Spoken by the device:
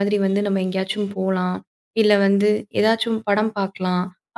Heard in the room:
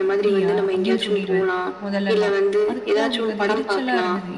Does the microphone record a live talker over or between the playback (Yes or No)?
Yes